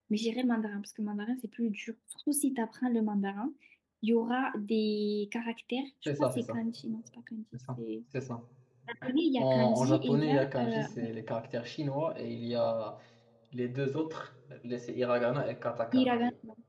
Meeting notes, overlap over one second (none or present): present